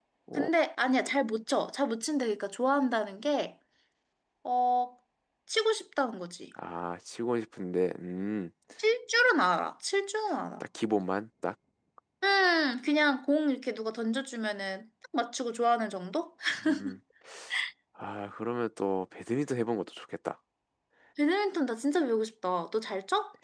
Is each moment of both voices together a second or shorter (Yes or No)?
Yes